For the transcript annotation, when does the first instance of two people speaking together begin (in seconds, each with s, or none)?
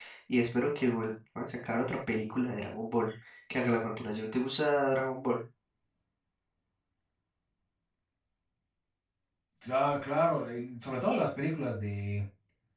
none